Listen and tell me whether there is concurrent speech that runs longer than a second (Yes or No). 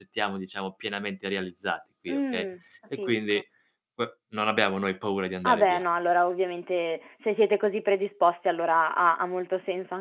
No